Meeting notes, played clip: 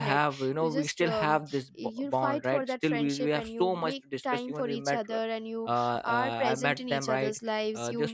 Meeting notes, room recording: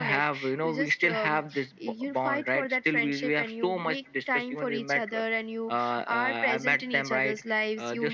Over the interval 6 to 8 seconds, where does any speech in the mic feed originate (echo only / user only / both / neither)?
echo only